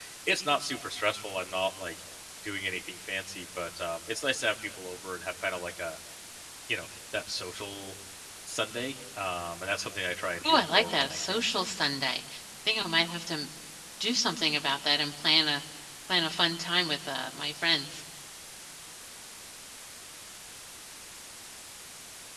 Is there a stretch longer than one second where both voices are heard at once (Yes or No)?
Yes